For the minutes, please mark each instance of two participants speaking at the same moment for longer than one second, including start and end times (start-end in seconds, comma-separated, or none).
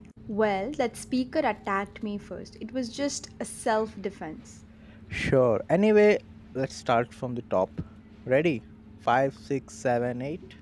none